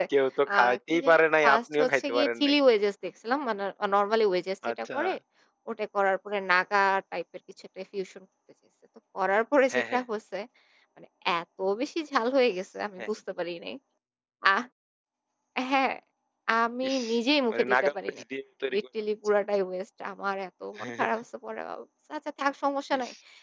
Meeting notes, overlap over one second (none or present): present